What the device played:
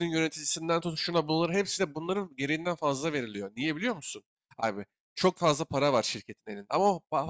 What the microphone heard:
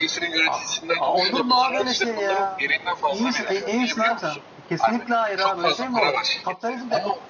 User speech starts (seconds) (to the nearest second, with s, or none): 0 s